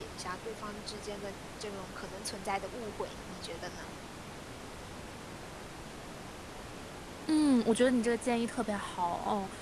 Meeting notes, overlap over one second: none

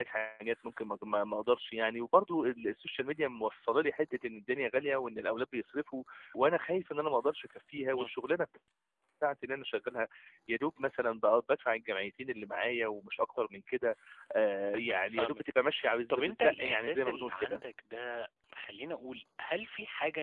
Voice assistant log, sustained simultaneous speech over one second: present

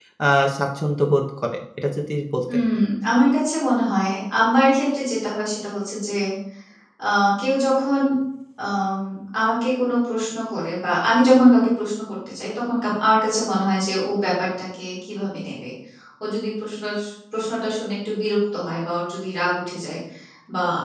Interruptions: none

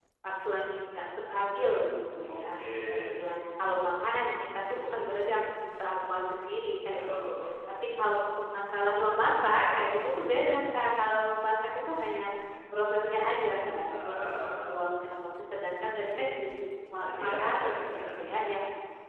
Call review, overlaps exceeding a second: present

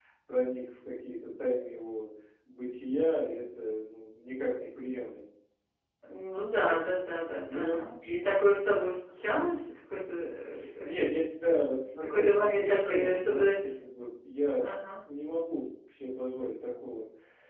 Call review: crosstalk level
present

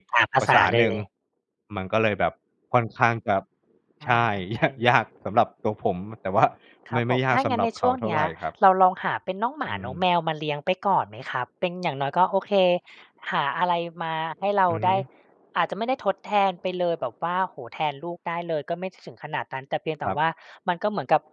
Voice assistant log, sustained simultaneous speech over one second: present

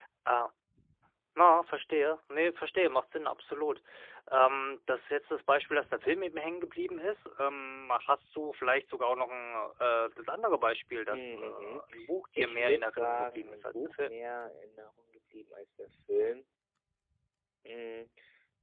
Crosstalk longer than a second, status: present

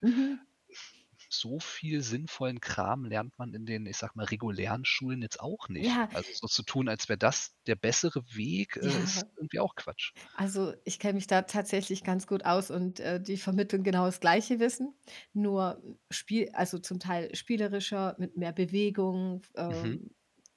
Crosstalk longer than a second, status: none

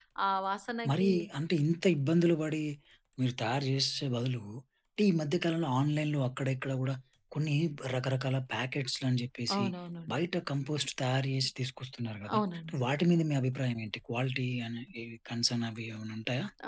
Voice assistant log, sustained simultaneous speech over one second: none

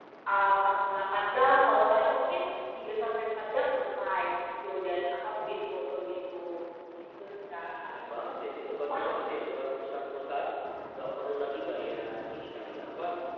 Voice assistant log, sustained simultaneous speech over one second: none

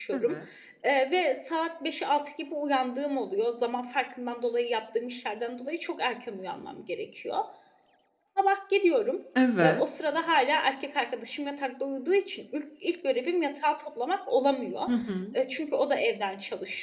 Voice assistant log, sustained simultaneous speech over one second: none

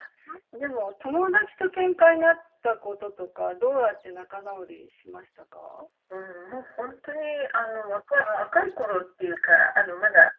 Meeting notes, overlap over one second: none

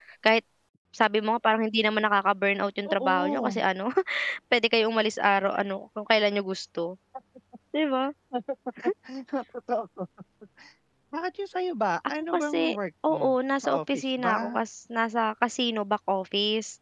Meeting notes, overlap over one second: present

